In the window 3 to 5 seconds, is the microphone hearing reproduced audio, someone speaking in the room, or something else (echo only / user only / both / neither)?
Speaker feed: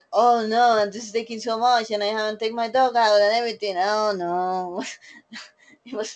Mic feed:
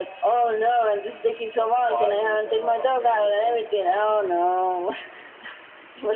both